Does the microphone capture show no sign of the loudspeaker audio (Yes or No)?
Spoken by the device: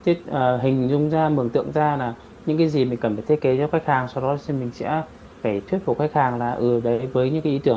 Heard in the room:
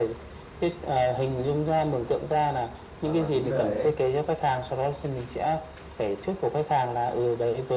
No